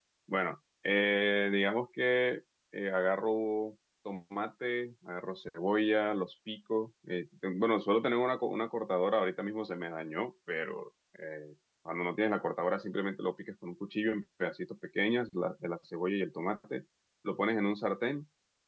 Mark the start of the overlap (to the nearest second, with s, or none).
none